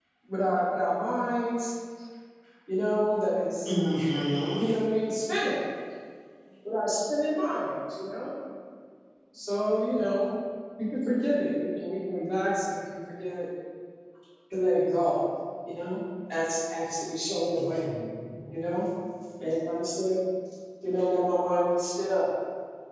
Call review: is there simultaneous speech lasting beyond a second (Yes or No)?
No